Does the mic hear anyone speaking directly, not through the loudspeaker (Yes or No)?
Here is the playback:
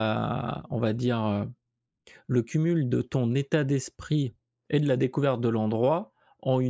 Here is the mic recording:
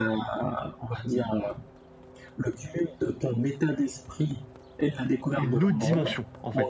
Yes